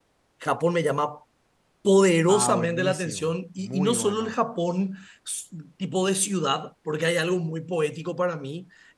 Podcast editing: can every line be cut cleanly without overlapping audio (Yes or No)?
No